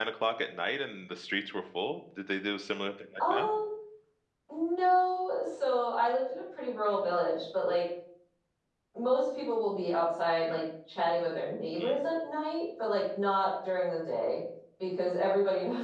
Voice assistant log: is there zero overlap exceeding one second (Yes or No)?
Yes